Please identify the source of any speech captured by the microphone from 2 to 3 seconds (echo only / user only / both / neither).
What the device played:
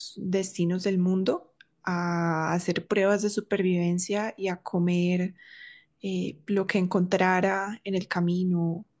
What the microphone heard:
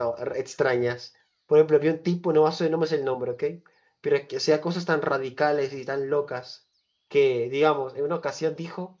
user only